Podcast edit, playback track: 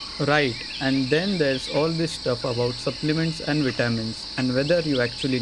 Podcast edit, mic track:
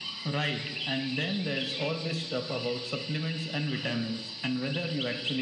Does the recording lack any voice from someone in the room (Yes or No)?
Yes